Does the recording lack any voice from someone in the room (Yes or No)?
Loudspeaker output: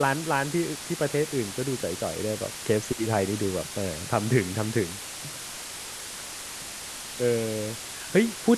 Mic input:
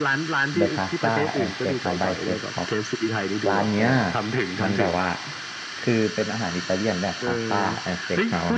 No